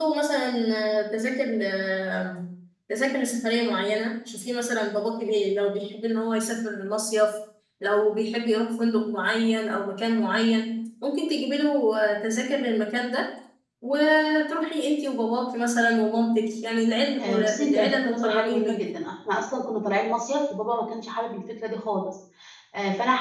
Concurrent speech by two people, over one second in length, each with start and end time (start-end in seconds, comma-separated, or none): 17.2-18.9